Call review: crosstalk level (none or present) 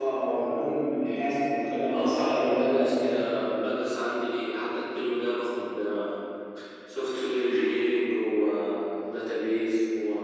present